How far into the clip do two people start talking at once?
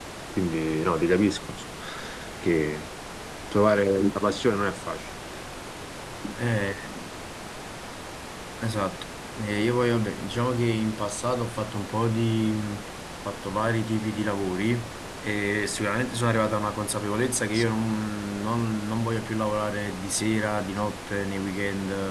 none

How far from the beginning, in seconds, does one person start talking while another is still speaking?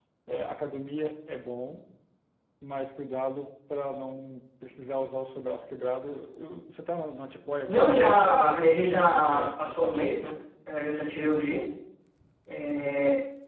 7.6 s

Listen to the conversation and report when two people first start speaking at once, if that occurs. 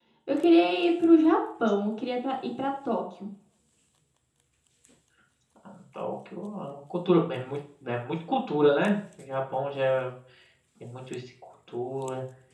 none

